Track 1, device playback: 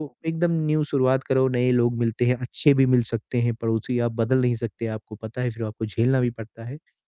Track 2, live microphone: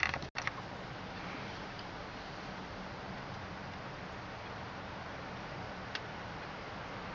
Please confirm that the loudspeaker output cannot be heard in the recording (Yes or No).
Yes